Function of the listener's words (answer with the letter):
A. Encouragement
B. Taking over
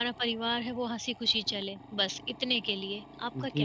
B